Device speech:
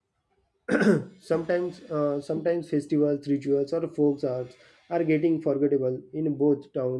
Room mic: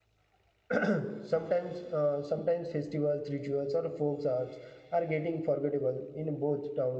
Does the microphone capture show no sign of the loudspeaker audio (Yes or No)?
No